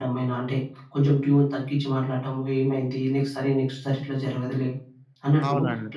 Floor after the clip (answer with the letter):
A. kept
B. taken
A